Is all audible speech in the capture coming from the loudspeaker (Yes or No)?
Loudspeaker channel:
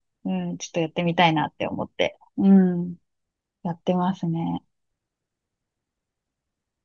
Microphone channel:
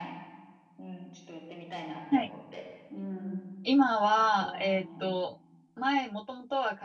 No